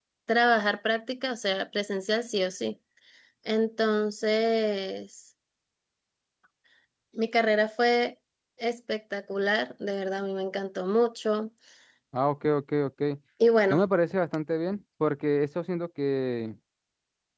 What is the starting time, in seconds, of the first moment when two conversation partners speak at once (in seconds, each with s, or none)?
none